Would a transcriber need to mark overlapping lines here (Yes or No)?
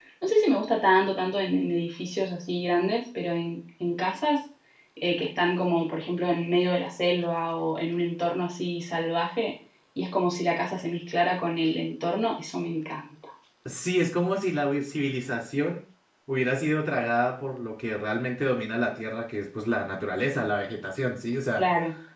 No